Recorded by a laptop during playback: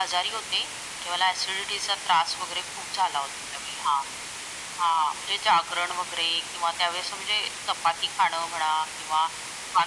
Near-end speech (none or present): none